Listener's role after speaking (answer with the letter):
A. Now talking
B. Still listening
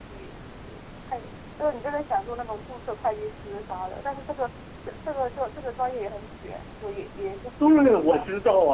A